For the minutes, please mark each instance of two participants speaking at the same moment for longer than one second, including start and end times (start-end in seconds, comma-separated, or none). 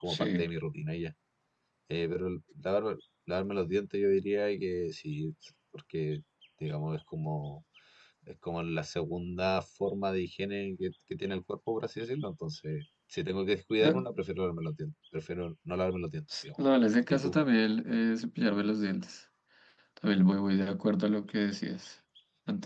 none